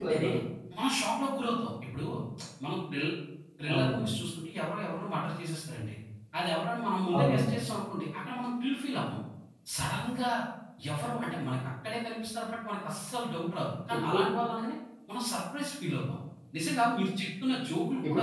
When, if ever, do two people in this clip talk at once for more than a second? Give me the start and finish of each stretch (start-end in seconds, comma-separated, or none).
none